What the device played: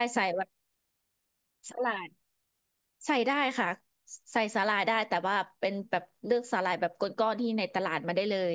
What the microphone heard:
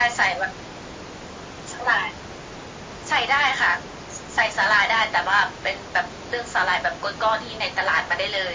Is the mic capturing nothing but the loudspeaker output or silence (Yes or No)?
Yes